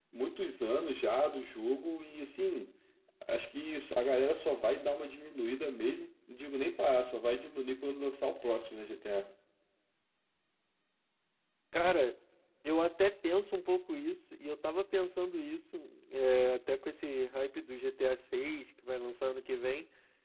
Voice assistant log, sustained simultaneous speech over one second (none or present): none